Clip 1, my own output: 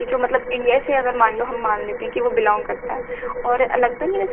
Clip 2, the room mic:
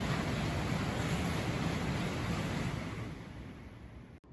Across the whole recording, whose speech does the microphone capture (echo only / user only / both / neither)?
neither